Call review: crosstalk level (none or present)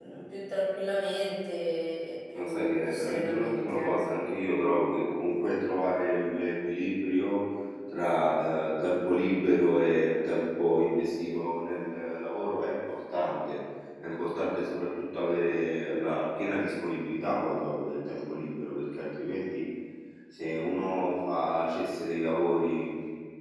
present